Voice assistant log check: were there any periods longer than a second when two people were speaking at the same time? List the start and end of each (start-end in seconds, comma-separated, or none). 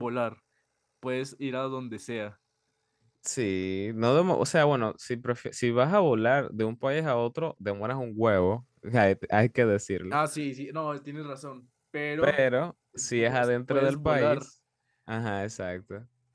13.0-14.4